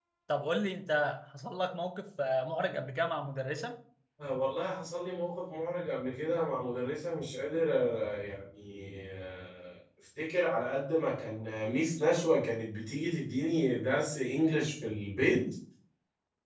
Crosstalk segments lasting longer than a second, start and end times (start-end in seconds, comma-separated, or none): none